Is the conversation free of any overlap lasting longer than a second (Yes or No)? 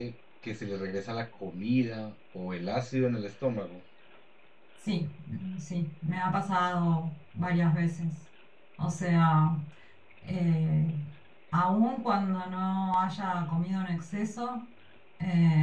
Yes